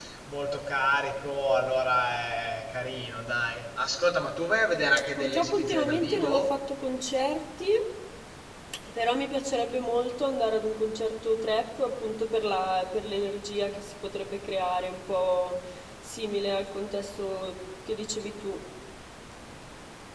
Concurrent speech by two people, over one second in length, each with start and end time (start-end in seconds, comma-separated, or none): 5.2-6.4